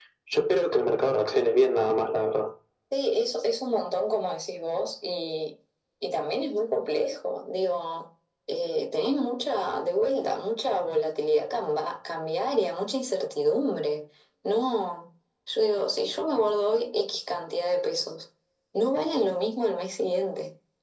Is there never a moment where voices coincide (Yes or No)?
Yes